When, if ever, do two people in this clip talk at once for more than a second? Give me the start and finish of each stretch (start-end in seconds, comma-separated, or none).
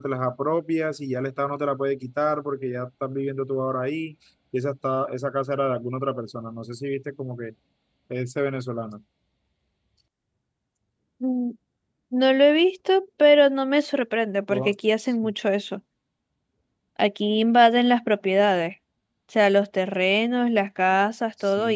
none